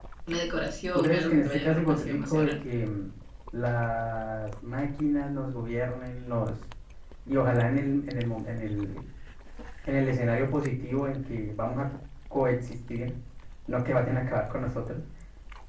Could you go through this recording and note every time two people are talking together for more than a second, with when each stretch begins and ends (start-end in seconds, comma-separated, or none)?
0.9-2.5